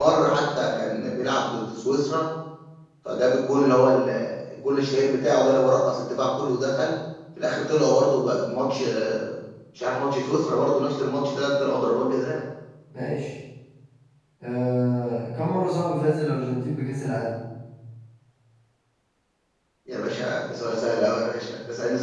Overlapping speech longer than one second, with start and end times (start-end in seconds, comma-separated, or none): none